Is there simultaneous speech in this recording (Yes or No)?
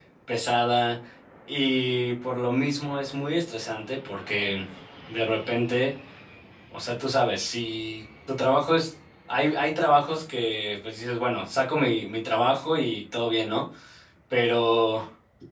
No